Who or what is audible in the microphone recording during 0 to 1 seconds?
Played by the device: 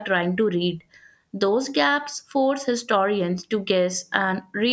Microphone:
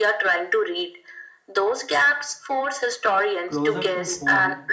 echo only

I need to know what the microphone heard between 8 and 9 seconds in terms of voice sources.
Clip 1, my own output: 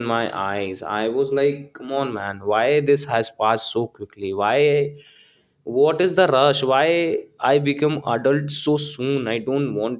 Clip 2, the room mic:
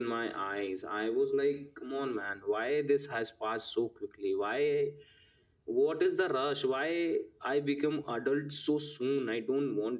echo only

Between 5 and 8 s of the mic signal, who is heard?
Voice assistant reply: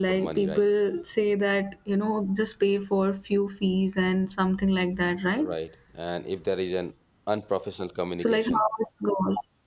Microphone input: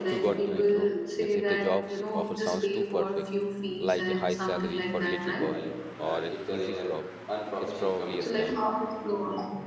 both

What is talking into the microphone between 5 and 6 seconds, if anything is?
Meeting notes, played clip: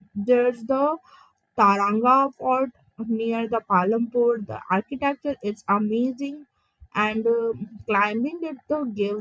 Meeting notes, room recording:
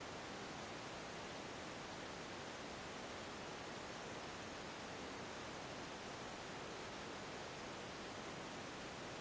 neither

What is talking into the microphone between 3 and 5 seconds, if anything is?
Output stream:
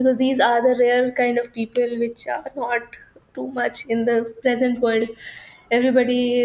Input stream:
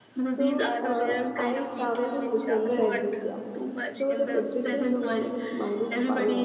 both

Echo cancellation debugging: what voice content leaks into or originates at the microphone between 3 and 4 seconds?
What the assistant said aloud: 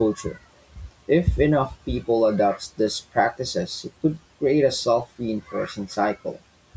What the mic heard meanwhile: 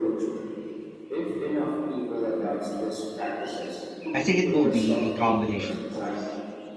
echo only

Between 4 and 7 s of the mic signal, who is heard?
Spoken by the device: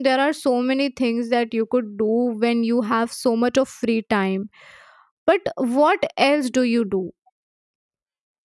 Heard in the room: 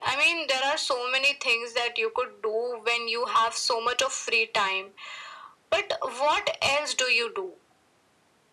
echo only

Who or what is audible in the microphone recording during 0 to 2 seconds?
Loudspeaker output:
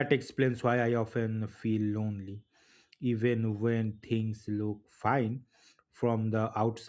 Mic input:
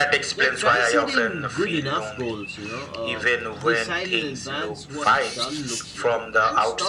both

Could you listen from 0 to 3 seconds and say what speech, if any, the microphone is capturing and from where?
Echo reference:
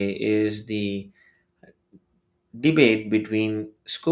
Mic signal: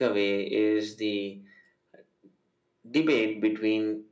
echo only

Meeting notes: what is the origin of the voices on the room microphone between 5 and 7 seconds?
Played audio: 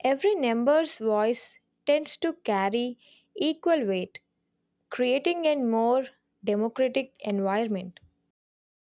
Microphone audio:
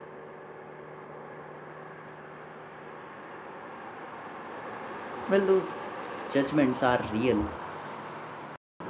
user only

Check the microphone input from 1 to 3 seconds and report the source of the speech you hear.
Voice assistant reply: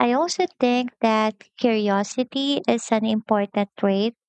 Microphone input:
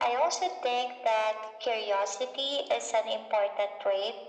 echo only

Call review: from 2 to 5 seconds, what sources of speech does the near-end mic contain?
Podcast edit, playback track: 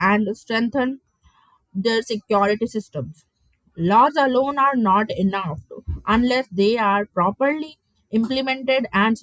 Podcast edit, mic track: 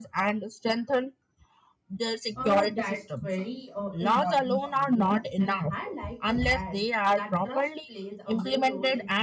both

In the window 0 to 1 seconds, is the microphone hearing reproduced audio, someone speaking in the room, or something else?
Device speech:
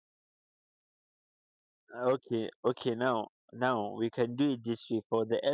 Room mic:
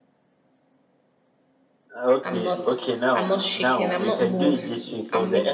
neither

